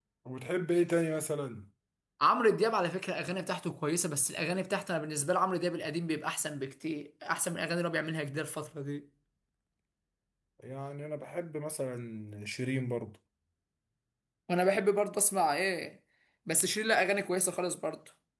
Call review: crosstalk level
none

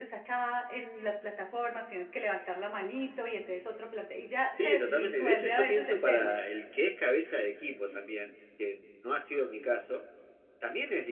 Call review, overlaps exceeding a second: present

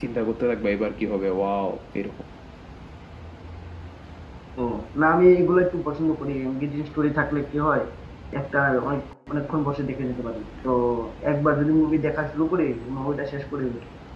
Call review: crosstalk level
none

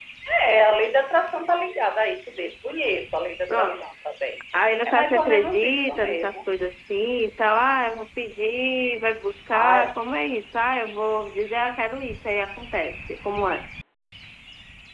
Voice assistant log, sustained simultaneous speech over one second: present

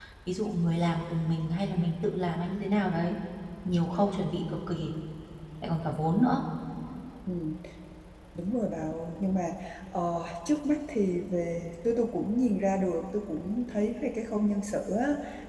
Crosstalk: none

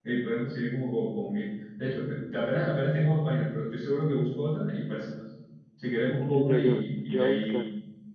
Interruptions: present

